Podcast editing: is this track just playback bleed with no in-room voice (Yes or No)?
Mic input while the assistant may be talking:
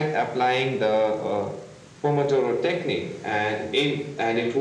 Yes